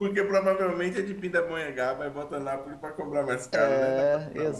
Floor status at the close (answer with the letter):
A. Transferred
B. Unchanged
A